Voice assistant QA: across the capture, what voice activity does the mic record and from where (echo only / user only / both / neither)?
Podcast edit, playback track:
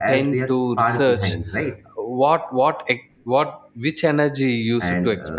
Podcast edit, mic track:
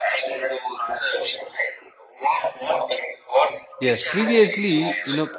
both